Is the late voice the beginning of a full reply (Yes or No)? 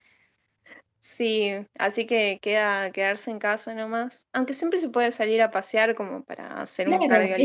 Yes